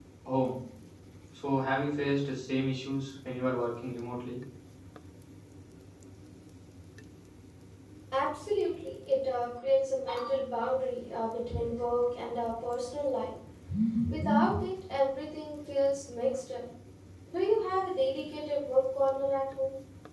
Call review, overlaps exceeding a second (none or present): none